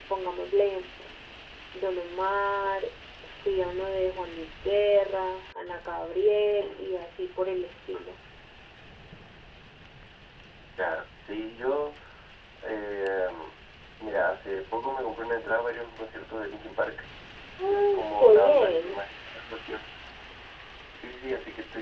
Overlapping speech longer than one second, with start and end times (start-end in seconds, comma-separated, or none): 17.7-18.9